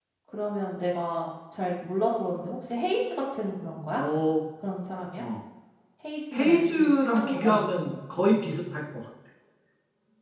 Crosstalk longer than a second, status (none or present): present